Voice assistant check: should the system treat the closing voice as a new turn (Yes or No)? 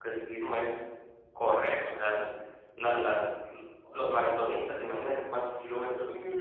Yes